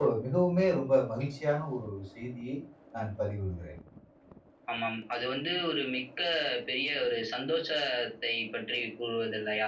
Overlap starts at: none

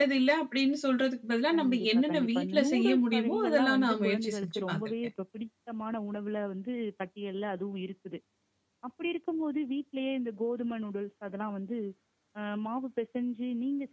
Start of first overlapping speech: 1.5 s

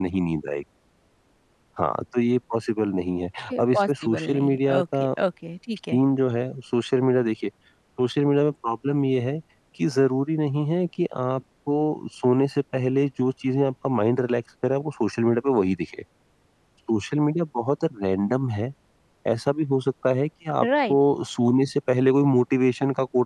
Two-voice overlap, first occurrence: 3.6 s

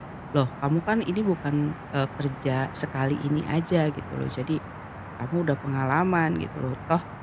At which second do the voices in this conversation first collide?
none

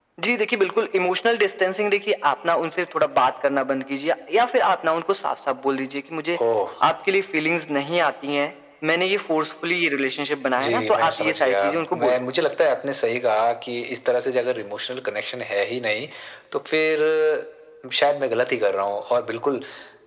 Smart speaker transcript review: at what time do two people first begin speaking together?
10.6 s

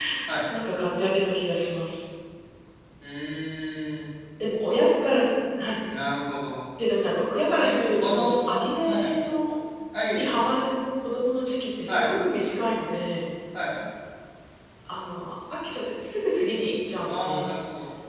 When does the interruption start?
7.6 s

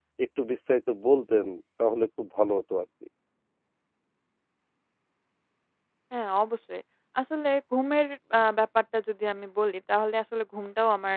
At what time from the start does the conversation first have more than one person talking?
none

